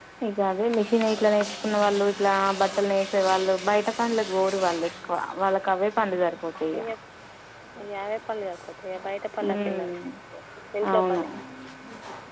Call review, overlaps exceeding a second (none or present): none